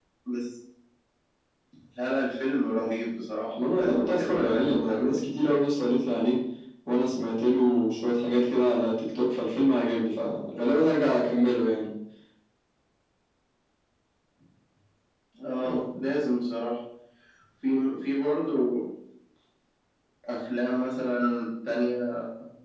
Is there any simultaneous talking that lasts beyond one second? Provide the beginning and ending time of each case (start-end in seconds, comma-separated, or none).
3.7-5.1